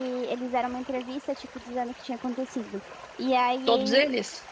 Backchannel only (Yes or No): Yes